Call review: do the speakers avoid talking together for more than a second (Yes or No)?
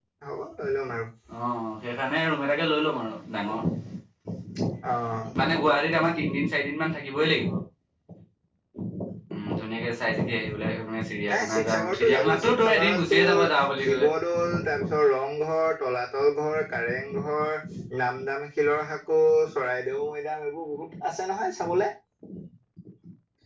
No